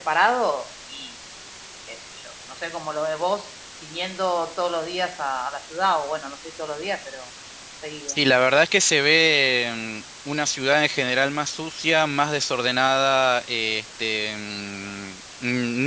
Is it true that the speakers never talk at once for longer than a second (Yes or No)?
Yes